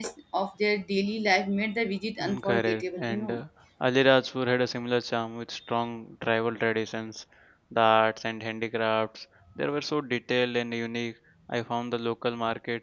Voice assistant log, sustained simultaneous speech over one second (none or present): present